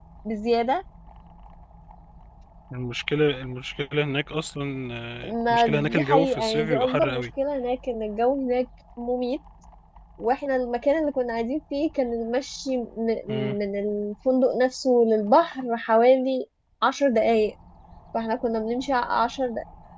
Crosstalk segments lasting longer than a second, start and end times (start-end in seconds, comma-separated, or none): 5.5-7.3